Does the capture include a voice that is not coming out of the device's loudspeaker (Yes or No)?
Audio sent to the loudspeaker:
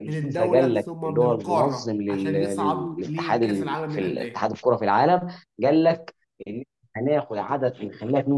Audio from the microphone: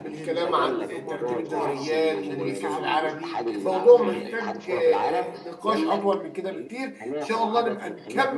Yes